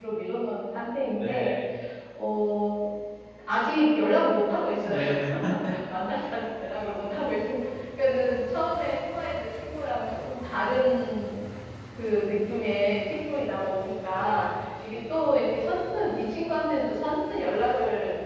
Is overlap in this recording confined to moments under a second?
Yes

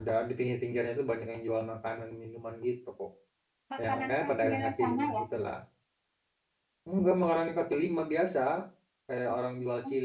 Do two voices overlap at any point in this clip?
Yes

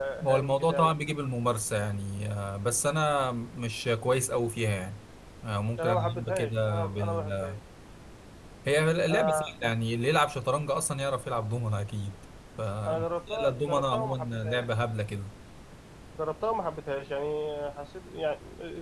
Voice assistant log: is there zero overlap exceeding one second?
No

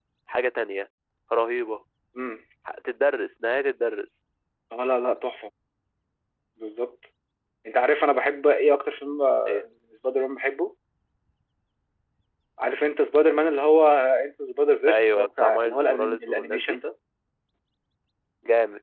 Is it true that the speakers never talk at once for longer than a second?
No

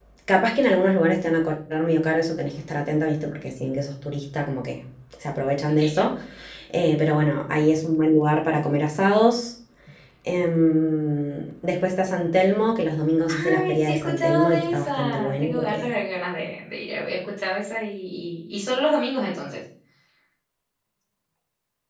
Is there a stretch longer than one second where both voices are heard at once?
Yes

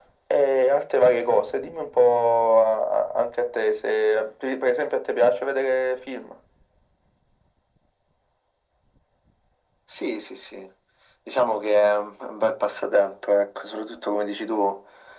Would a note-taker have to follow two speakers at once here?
No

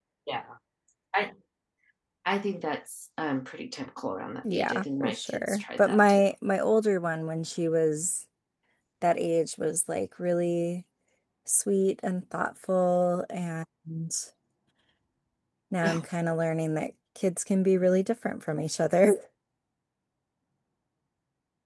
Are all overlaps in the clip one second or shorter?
No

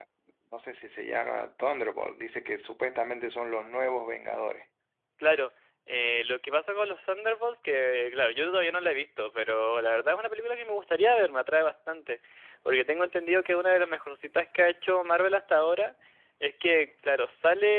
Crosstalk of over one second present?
No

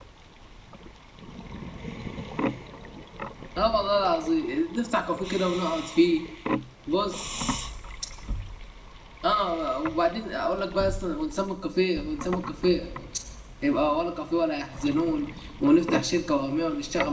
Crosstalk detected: No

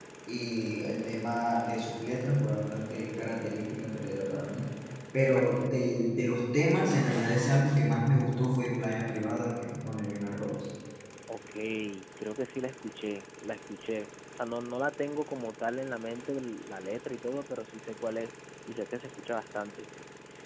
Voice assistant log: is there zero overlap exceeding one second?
Yes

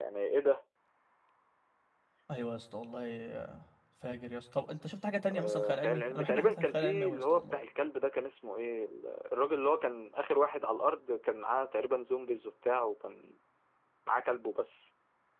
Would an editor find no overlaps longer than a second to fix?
No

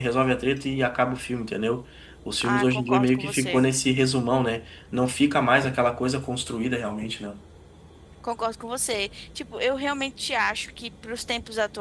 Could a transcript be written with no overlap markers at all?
No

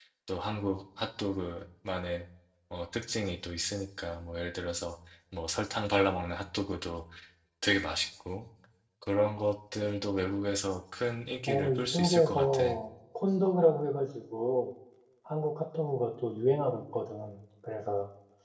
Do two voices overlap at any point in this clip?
Yes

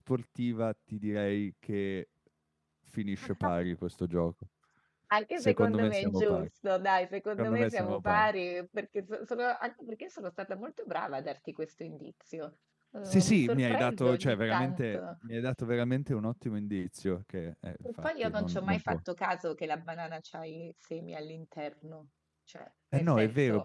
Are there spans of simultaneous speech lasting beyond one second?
Yes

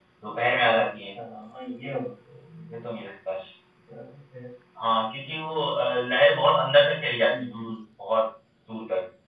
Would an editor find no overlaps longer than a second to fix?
Yes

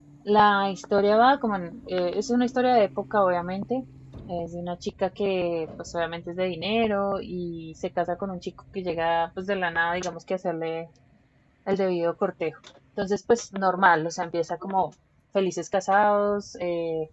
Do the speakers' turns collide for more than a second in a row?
No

